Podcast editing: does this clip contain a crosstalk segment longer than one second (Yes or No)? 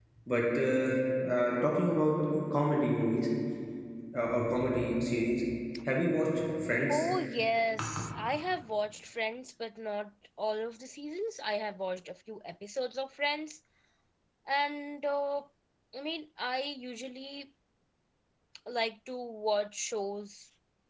No